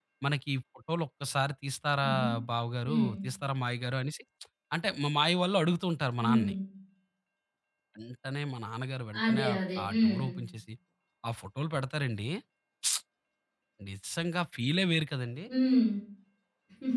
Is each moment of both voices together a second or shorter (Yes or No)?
Yes